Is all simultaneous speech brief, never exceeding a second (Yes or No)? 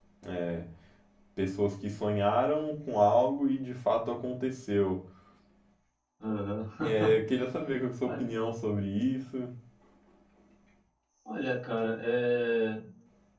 Yes